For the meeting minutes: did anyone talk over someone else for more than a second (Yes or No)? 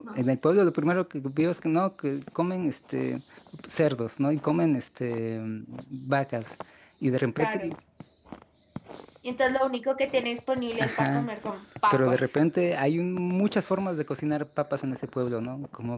No